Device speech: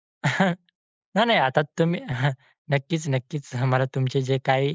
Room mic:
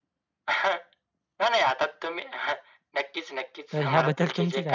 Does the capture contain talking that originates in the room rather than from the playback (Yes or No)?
Yes